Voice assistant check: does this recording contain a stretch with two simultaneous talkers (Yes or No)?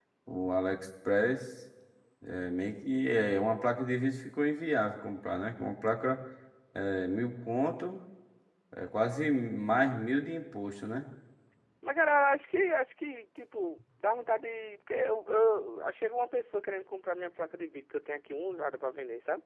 No